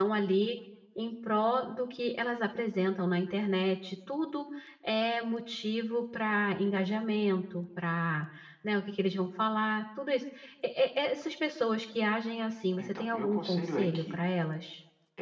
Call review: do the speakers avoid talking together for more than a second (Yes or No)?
No